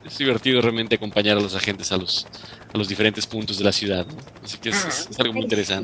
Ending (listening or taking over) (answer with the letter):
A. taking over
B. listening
A